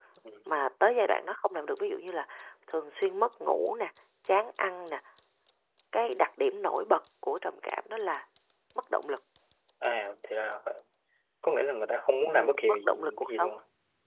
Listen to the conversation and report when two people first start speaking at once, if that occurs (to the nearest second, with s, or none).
12 s